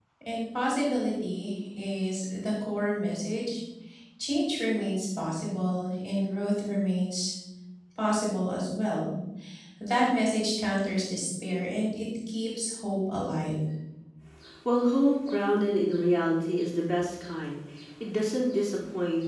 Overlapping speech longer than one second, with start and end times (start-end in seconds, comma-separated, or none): none